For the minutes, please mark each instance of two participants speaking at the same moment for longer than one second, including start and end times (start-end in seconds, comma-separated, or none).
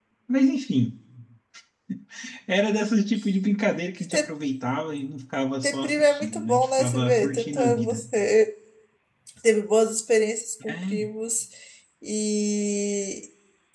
5.6-8.0